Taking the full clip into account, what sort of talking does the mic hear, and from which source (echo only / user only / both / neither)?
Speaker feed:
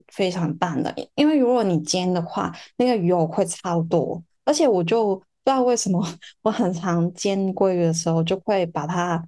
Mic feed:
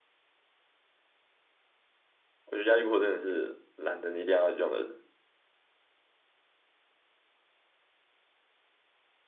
user only